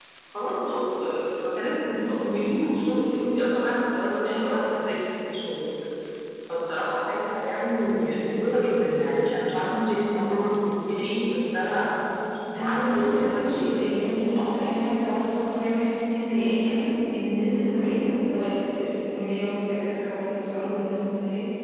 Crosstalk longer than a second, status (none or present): present